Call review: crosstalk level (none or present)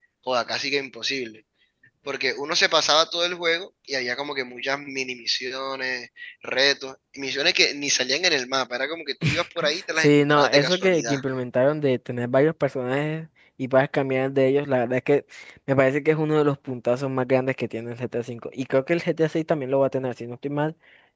present